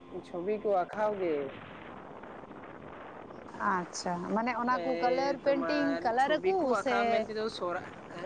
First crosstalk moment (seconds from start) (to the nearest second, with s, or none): 5 s